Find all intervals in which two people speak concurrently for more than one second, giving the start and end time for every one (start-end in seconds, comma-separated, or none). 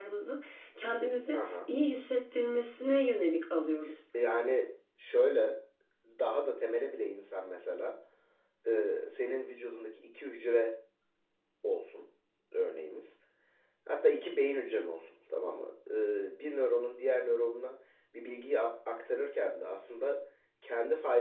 none